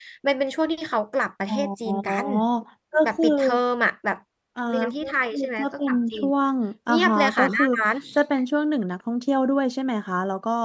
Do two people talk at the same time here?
Yes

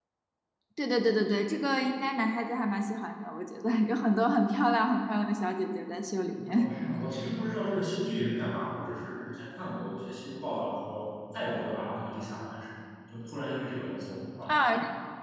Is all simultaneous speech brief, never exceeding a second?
Yes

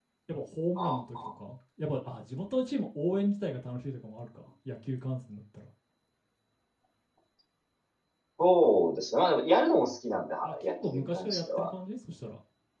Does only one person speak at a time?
No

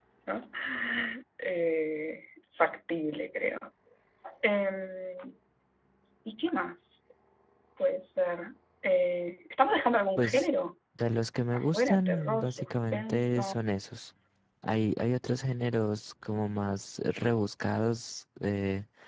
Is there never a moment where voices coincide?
No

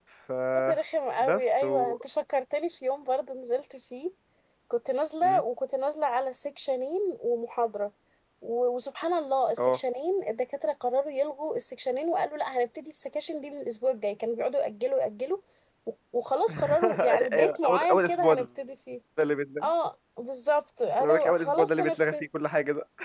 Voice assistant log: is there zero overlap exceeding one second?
No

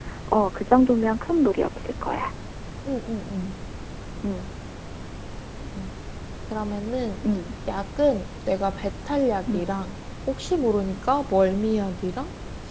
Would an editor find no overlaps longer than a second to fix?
Yes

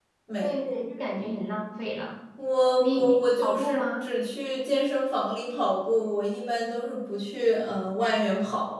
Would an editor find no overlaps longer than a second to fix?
No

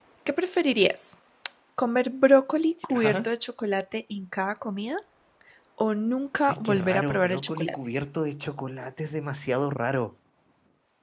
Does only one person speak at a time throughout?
No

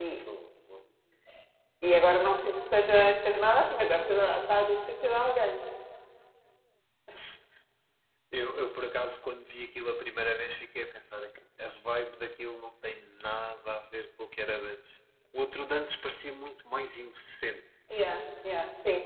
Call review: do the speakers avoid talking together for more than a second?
Yes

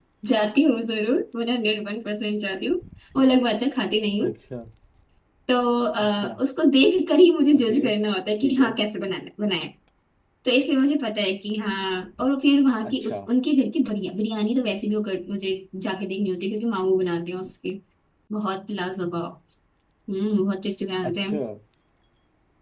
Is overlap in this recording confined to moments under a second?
Yes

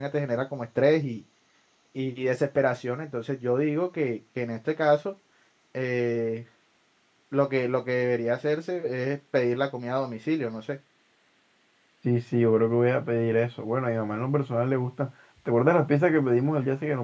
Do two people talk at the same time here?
No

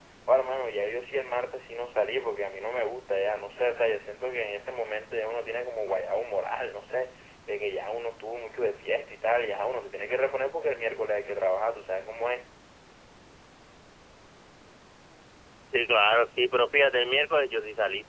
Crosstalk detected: No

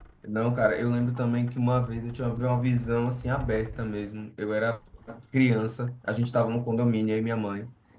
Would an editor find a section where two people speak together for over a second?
No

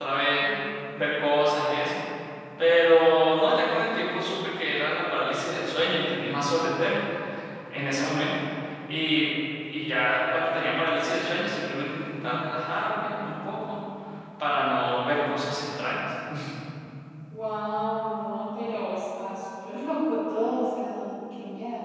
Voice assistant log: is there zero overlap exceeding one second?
Yes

